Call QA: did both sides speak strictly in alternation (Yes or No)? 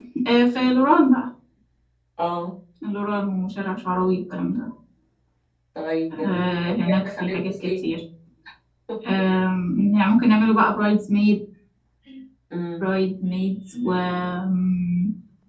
No